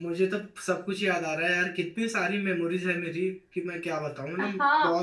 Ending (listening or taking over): taking over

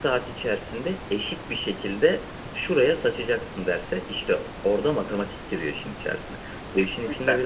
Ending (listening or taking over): listening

